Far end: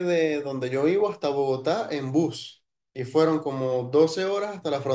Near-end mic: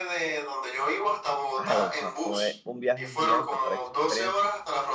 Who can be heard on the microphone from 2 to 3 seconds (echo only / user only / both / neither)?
both